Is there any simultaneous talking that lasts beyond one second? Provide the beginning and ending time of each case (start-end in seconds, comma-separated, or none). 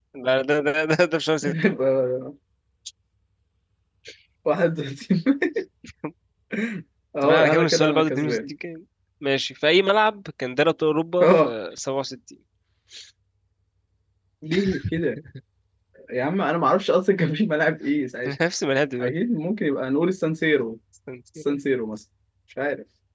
7.2-8.5